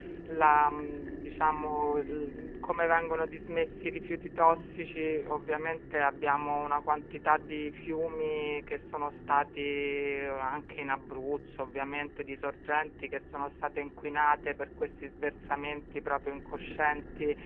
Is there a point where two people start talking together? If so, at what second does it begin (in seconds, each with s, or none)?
none